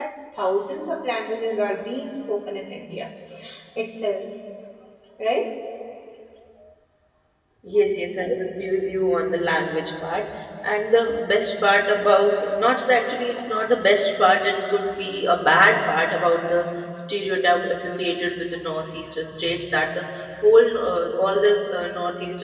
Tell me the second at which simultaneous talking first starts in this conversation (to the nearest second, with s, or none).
none